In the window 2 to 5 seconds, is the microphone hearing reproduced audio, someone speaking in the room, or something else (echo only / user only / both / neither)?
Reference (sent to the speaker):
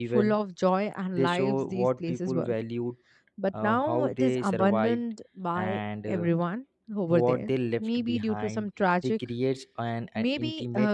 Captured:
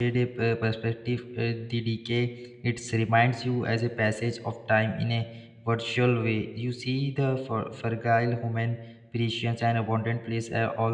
user only